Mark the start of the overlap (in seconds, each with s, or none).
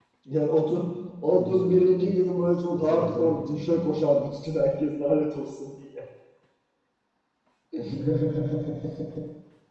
1.2 s